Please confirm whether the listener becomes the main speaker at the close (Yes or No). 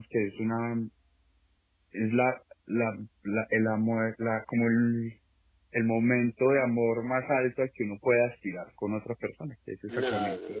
Yes